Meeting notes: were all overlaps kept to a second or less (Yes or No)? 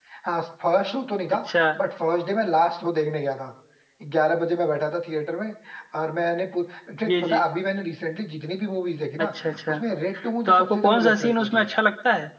No